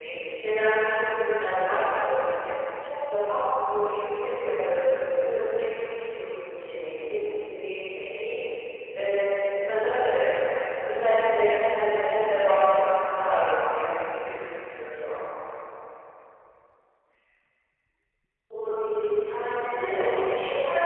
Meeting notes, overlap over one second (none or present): none